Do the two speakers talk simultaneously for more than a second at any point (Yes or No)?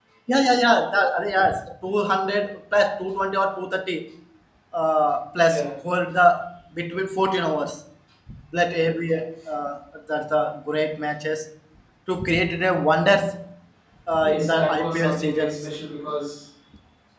Yes